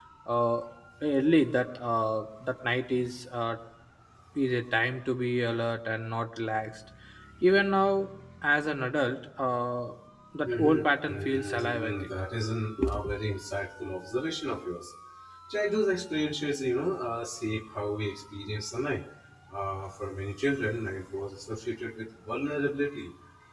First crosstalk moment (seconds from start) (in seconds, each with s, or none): 10.4 s